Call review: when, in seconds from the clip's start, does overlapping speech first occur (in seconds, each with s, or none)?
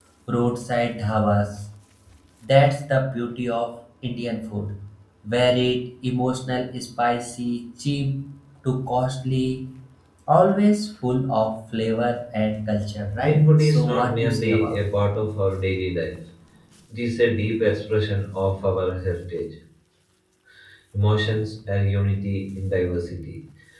13.2 s